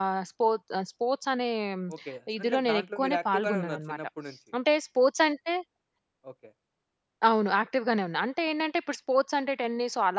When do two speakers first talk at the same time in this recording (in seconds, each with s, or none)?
2.4 s